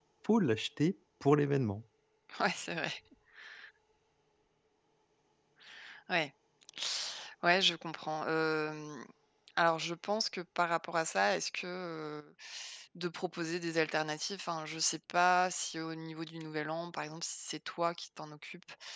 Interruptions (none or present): none